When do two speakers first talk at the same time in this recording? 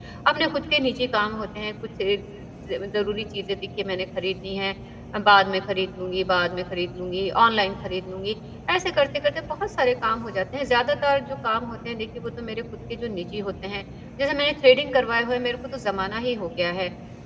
none

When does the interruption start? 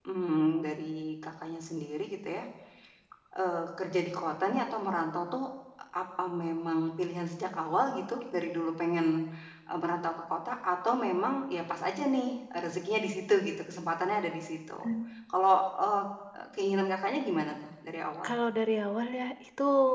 none

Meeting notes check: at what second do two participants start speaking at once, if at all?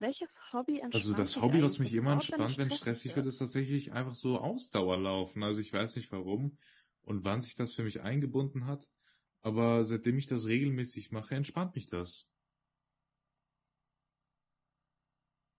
0.9 s

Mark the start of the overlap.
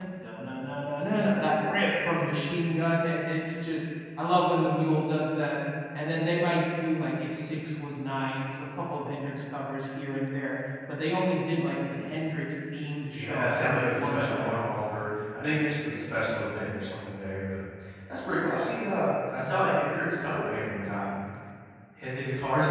13.1 s

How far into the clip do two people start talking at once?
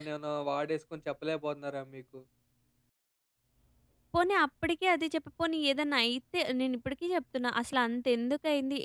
none

